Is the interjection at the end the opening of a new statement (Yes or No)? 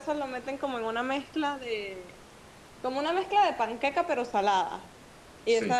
No